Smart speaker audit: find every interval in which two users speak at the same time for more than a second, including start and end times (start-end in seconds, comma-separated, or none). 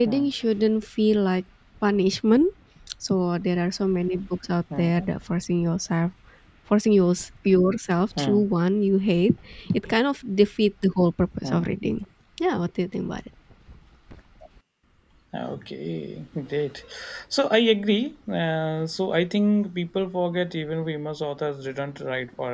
none